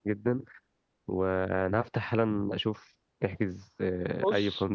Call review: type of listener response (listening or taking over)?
taking over